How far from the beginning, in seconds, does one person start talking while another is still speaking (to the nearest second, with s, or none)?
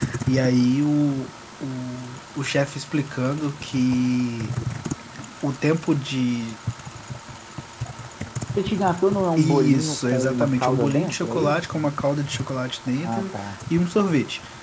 9 s